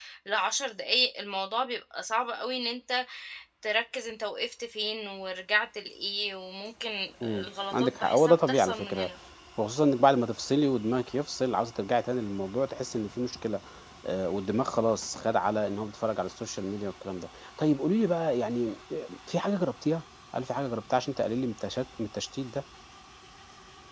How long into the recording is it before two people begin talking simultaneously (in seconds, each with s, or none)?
7.2 s